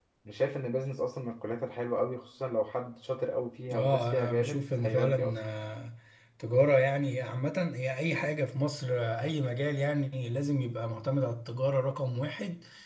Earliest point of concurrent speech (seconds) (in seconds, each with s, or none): 3.7 s